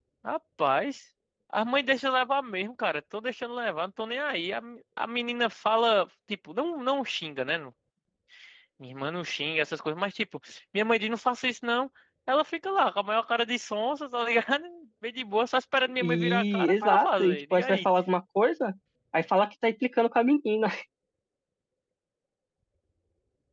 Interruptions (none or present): present